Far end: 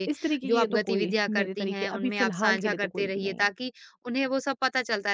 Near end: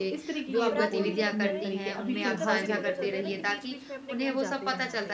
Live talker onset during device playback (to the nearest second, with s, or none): 1 s